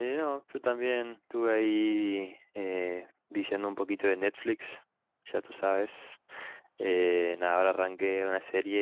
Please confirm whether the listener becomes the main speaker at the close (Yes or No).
No